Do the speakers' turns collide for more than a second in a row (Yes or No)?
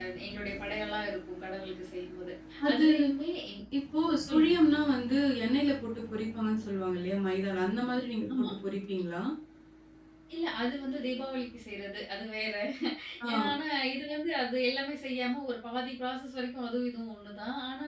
No